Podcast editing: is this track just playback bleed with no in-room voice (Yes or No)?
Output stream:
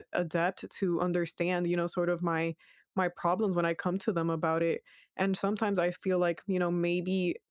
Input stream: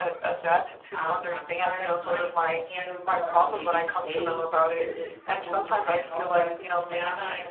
No